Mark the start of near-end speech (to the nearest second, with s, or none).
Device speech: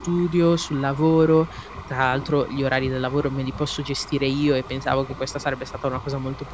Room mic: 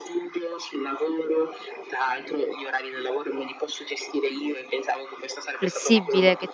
6 s